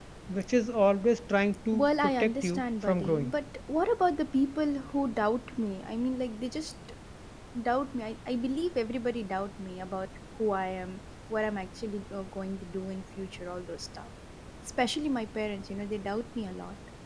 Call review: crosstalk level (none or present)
present